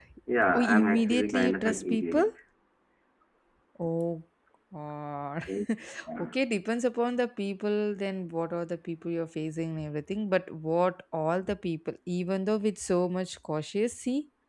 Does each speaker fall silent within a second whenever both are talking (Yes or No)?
No